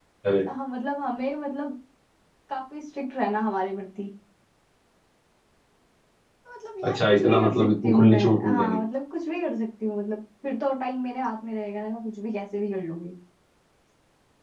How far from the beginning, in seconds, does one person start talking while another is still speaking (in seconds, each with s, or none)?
6.9 s